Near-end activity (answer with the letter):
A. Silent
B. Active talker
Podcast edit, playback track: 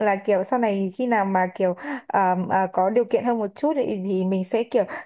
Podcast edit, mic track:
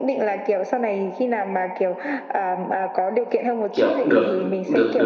B